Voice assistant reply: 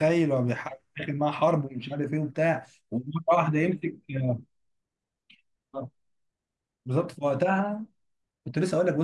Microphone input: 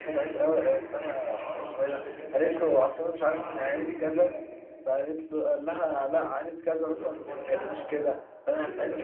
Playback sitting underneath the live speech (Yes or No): Yes